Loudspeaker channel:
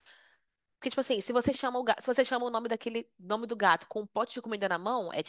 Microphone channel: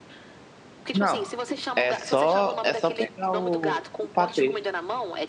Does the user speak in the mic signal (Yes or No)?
Yes